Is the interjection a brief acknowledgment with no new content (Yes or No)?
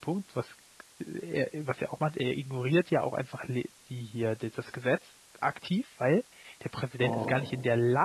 Yes